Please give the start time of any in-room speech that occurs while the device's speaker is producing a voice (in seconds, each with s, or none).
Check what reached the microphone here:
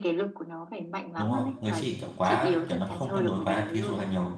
1.2 s